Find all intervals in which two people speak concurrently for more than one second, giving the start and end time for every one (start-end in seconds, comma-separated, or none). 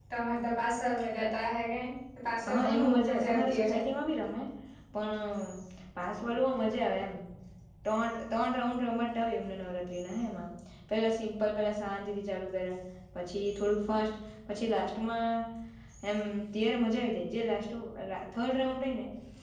2.5-3.7